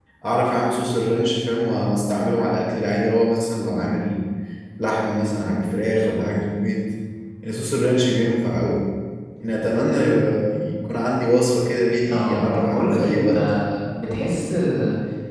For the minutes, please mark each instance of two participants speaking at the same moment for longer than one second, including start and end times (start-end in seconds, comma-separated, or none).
12.1-13.4